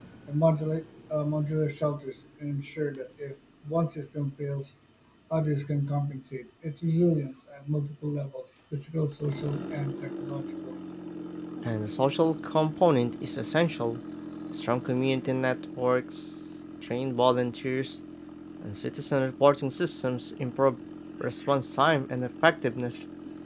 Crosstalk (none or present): none